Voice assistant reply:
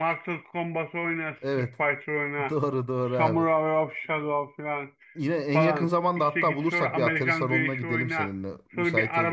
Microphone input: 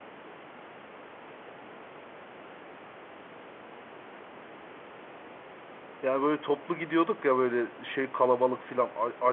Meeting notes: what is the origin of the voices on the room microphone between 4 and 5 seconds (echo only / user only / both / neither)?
neither